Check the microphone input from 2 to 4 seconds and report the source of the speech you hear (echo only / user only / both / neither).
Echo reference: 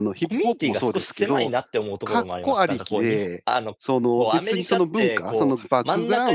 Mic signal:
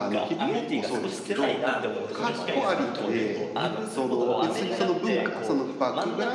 both